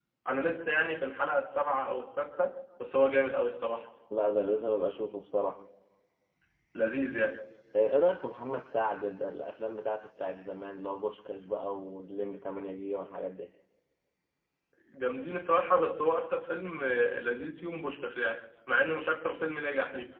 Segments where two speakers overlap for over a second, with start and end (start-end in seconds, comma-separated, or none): none